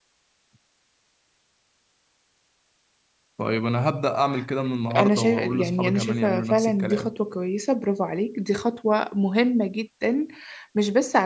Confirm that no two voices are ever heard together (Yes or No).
No